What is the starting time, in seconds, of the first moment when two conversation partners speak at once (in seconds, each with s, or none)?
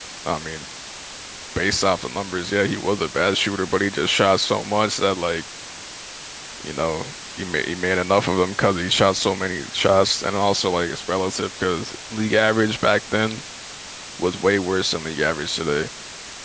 none